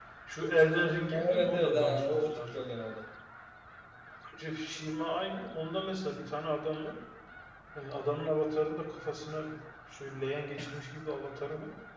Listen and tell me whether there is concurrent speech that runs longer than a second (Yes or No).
Yes